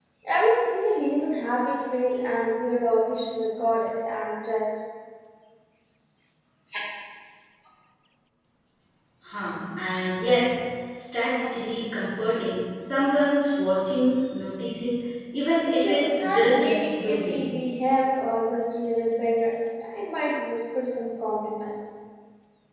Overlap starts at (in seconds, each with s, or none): 15.8 s